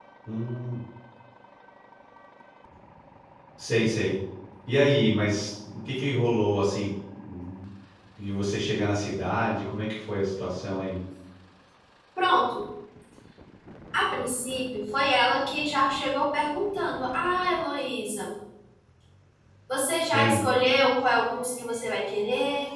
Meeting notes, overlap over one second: none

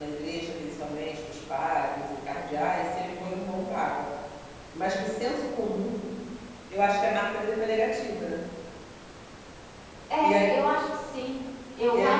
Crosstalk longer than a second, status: none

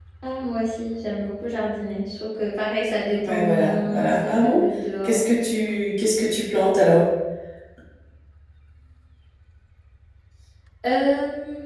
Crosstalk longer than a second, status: present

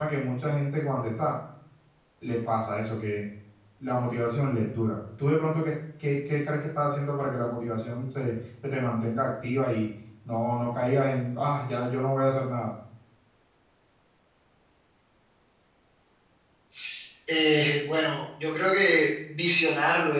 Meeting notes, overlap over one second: none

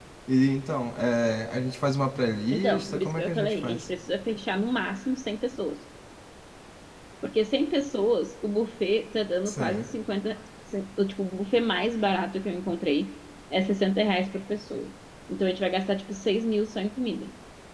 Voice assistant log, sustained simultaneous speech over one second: present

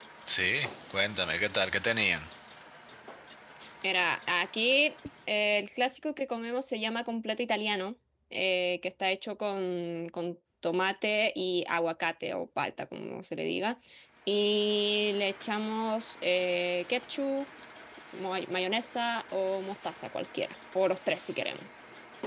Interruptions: none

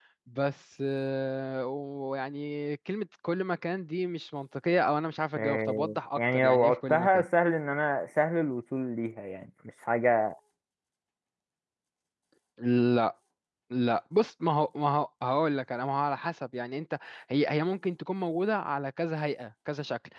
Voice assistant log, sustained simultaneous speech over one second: present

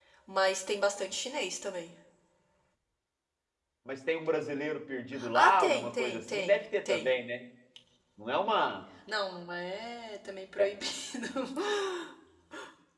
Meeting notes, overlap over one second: present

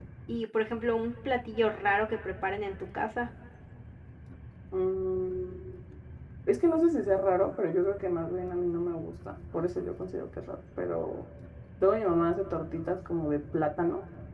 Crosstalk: none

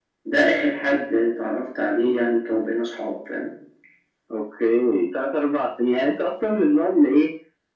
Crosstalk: none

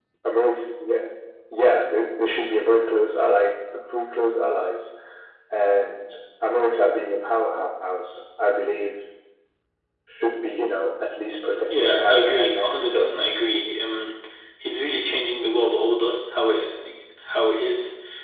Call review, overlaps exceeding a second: present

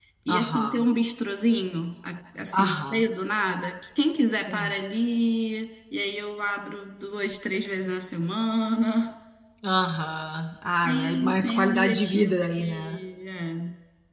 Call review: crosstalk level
present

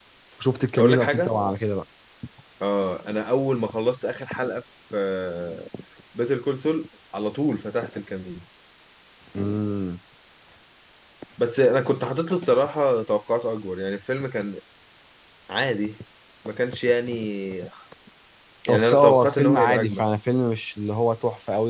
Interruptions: present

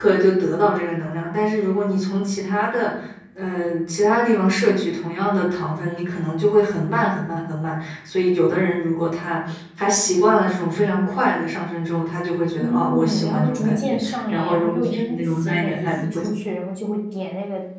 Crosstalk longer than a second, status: present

